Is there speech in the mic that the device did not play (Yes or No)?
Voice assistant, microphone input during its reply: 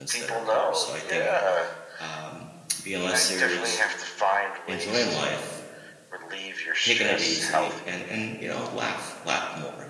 Yes